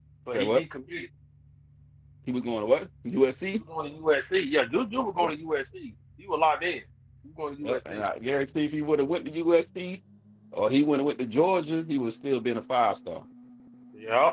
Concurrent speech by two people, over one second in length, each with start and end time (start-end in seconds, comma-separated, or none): none